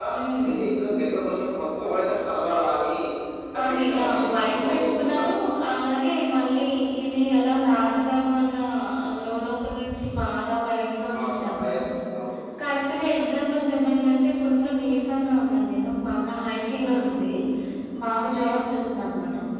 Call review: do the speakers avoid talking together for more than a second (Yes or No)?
No